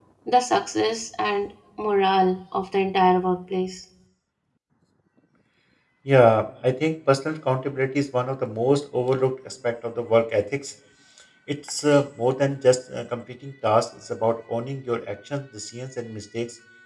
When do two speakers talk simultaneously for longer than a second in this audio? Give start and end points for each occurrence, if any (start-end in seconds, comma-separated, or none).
none